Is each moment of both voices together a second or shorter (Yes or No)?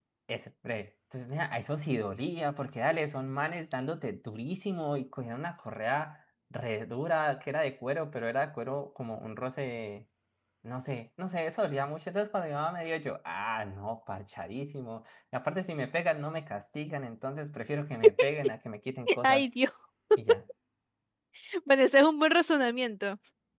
Yes